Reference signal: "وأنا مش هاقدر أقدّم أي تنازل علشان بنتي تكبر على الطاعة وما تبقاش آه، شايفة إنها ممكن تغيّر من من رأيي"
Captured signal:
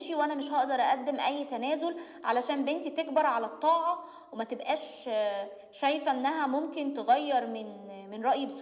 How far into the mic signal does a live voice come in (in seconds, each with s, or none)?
none